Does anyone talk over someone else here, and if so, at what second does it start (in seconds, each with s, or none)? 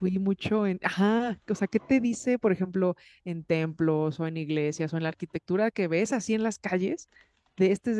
none